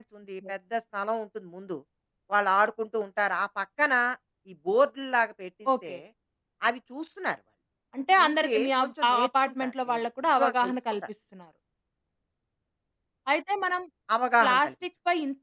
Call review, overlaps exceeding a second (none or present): present